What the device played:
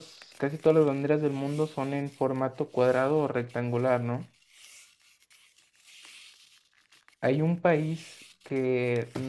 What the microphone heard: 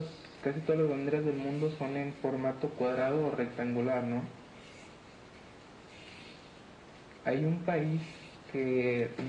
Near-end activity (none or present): none